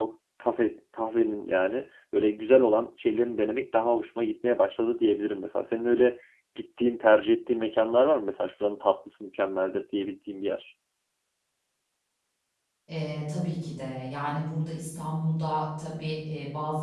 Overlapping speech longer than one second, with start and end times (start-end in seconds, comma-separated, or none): none